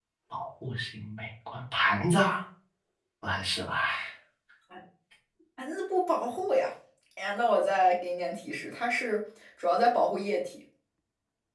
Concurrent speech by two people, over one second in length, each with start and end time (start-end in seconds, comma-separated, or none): none